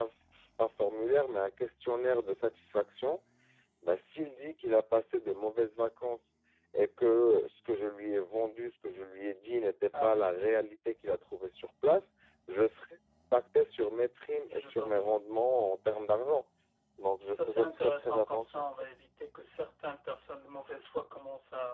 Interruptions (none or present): present